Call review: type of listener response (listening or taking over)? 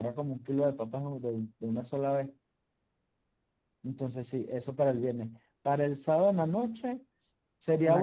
listening